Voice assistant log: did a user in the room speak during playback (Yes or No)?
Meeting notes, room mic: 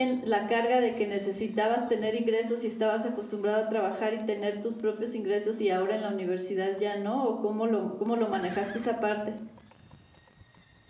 Yes